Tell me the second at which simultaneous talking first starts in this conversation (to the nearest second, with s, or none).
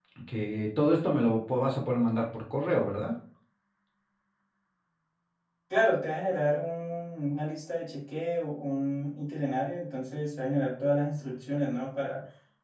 none